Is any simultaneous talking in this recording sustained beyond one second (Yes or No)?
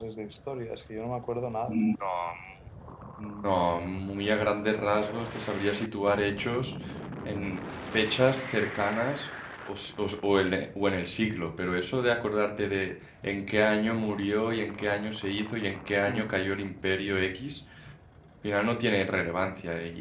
No